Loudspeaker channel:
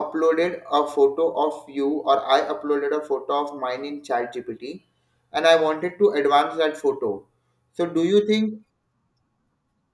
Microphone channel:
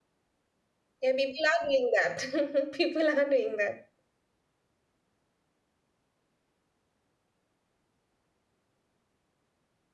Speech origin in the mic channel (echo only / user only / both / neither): user only